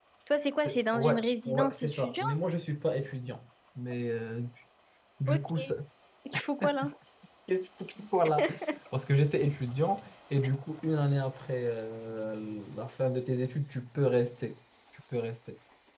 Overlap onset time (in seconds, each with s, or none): 0.6 s